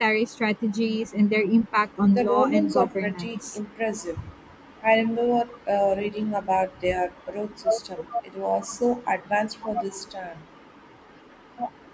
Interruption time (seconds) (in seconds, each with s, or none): 2.1 s